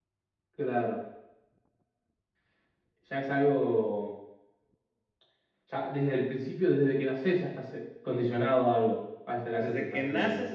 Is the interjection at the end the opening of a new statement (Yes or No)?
Yes